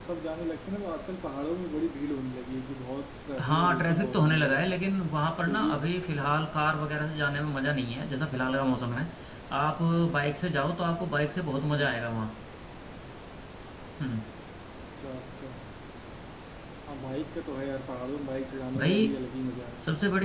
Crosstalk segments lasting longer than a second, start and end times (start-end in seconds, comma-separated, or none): 3.4-4.8